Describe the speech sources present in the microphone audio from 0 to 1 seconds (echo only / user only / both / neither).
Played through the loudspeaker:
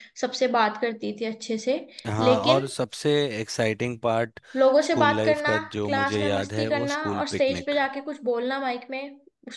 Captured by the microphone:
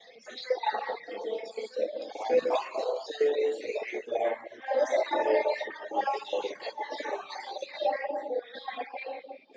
echo only